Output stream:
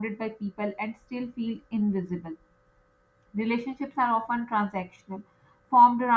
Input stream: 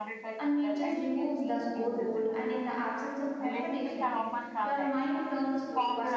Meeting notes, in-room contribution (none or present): present